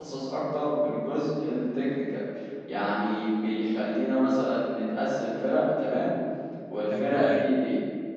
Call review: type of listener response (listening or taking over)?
listening